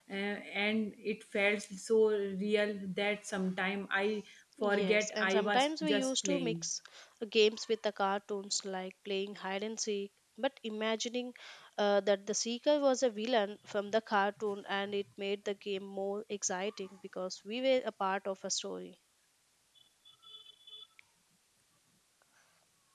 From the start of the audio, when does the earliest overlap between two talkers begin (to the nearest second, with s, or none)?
5 s